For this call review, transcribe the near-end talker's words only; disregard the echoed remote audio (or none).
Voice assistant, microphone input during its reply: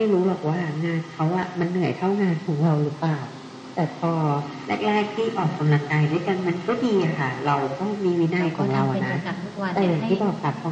แล้วก็ทำเป็นประจำทุกวันเนี่ยให้